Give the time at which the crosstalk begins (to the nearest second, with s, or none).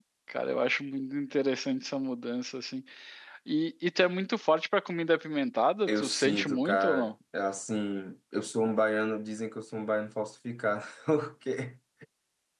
6 s